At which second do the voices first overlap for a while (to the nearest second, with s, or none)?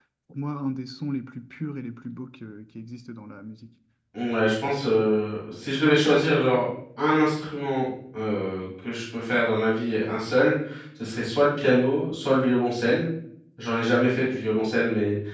none